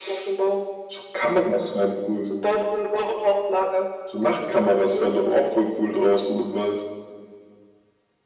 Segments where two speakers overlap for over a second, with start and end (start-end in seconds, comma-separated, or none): none